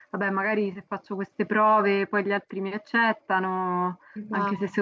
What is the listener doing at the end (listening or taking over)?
listening